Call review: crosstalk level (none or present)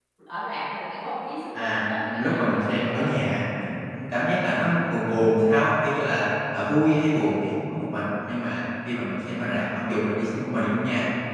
present